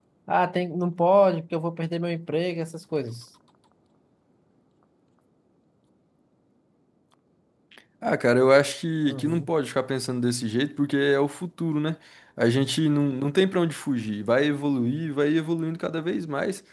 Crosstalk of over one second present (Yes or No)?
No